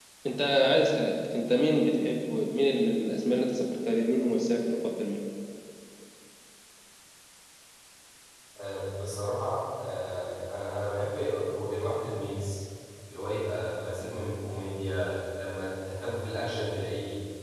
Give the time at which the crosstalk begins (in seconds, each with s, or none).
none